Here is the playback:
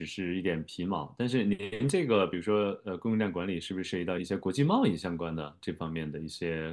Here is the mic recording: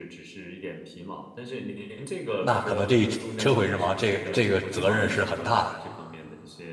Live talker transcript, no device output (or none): 那可能这一车毁人亡，这个这个责任是很大的。